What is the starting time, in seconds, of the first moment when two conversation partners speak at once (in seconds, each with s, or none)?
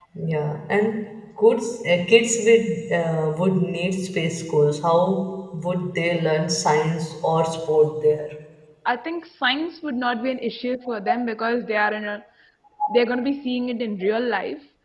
none